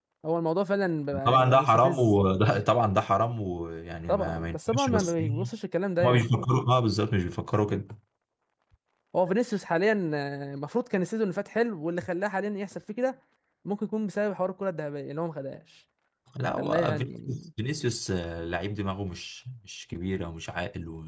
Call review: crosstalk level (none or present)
present